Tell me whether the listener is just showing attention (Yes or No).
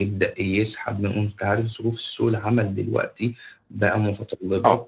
Yes